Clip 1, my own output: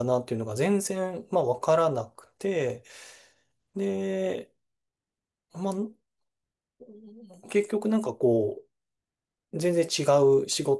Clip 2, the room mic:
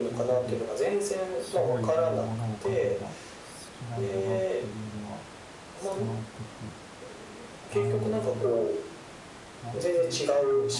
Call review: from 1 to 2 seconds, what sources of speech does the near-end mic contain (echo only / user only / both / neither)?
both